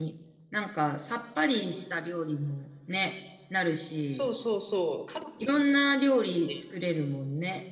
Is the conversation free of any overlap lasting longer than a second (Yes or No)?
Yes